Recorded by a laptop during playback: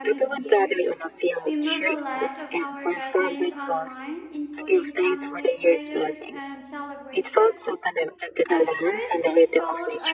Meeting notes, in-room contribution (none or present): present